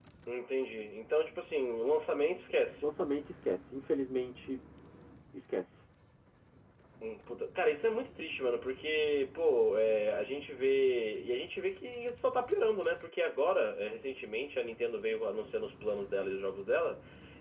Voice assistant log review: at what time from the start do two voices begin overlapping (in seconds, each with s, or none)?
none